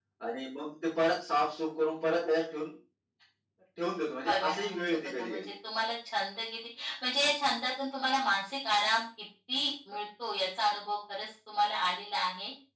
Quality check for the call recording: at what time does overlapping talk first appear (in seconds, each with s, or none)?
4.2 s